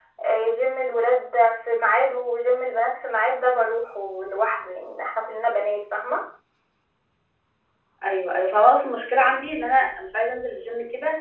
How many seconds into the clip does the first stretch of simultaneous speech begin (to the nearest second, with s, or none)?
none